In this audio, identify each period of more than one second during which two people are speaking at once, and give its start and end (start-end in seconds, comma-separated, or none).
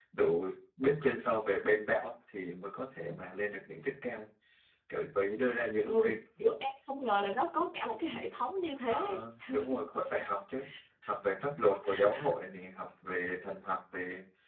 none